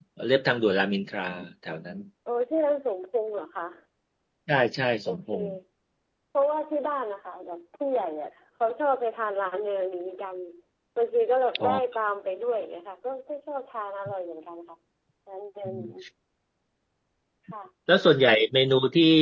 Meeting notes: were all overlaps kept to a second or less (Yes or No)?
Yes